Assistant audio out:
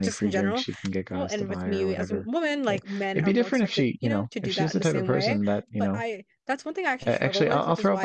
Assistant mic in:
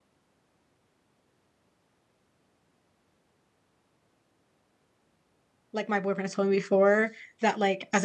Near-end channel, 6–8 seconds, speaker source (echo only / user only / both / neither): user only